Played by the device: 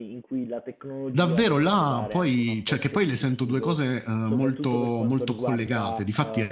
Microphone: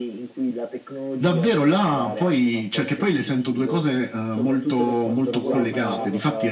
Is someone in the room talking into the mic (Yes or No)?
Yes